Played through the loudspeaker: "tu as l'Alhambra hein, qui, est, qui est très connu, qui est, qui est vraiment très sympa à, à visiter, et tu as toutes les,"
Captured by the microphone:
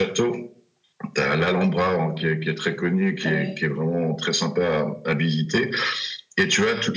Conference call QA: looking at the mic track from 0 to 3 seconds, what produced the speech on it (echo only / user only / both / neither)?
echo only